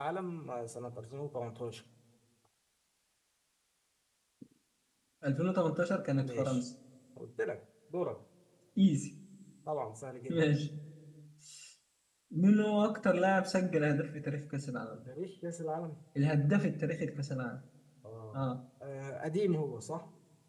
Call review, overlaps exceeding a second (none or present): none